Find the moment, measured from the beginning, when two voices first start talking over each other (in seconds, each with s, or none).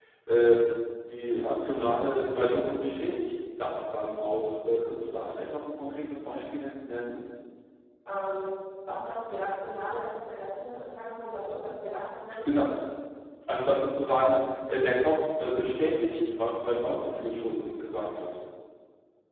none